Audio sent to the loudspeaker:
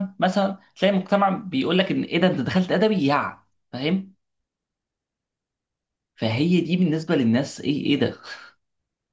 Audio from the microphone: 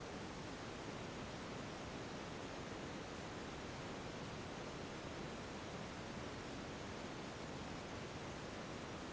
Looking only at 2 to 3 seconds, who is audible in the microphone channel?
neither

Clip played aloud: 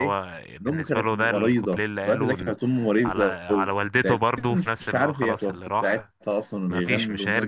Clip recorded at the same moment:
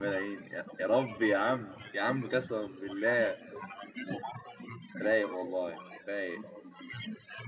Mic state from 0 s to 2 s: both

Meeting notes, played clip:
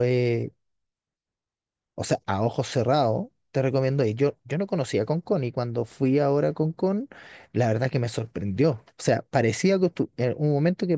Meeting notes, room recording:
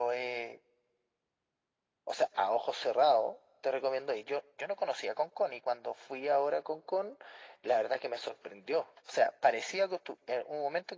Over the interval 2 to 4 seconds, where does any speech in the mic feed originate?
echo only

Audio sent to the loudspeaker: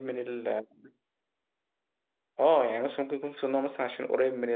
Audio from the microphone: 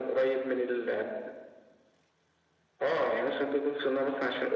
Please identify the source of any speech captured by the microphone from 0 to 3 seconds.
echo only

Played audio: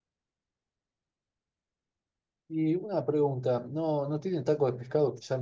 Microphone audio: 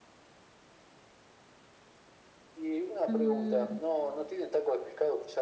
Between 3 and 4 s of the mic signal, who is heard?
both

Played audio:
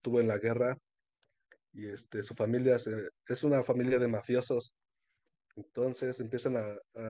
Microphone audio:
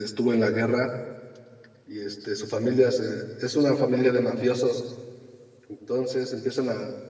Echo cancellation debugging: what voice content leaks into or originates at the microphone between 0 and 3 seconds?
echo only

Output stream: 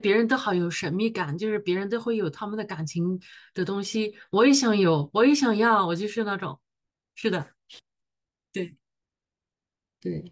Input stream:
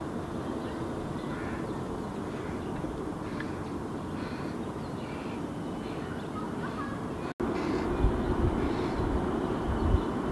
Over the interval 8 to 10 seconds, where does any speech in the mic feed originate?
neither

